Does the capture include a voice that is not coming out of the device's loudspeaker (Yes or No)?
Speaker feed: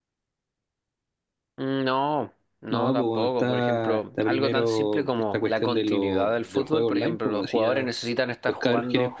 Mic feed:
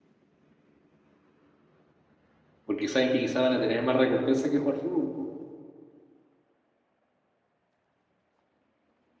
Yes